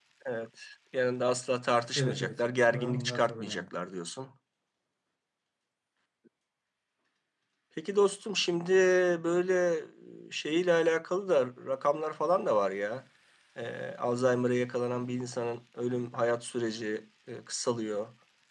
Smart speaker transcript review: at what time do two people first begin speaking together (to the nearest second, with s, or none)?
2 s